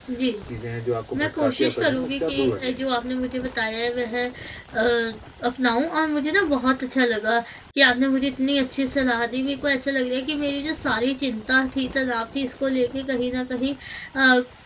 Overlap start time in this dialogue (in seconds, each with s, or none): 1.2 s